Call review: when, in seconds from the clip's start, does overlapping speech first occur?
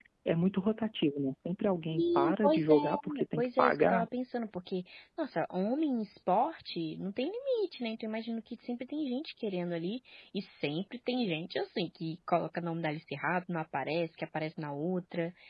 2 s

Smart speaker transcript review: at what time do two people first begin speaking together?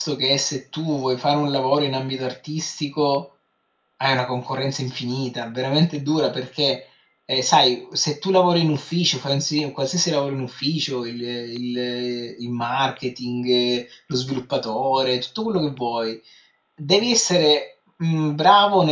none

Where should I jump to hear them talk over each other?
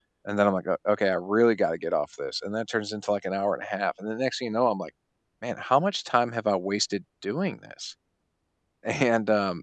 none

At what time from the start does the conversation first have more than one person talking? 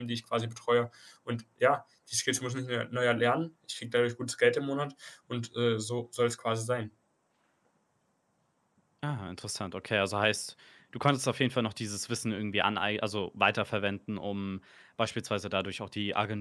none

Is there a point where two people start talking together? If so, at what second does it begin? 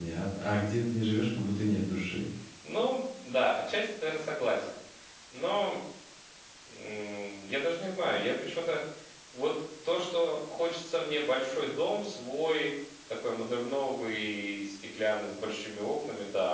none

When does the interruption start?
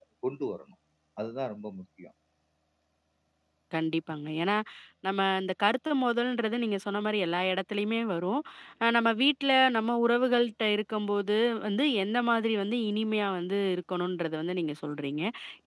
none

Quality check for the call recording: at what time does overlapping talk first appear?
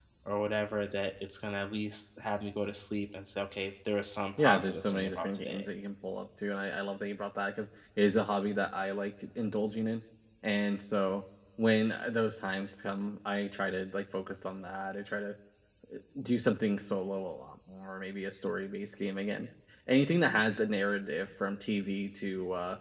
4 s

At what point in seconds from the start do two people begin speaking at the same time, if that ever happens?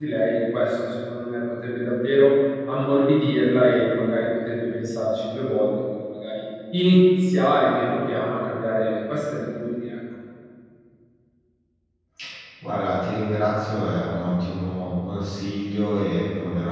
none

